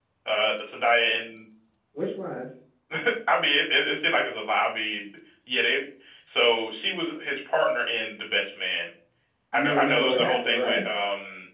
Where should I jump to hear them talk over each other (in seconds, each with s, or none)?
9.5 s